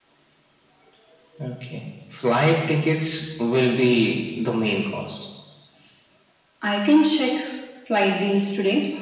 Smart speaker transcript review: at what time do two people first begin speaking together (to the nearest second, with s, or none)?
none